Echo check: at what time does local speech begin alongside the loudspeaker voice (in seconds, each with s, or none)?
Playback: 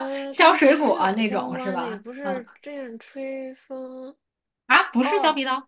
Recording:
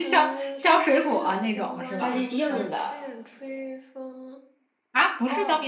2.0 s